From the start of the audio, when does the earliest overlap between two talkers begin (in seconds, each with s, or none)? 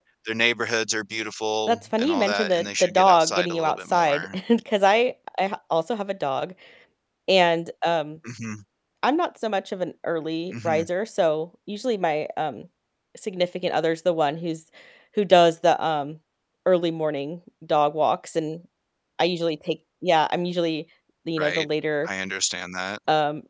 1.7 s